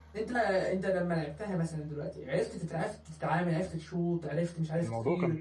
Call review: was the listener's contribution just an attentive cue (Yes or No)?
No